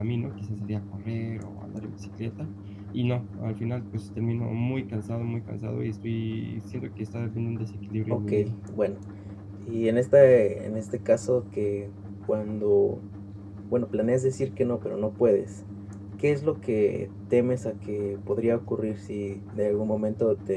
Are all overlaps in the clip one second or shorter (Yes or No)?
Yes